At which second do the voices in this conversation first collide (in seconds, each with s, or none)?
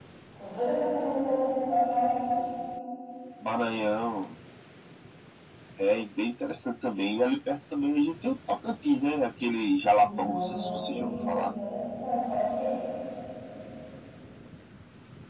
9.8 s